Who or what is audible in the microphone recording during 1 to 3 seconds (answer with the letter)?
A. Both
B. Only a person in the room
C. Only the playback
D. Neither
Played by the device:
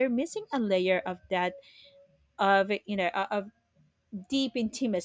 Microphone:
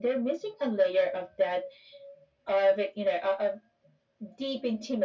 C